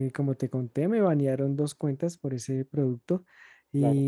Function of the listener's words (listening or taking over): listening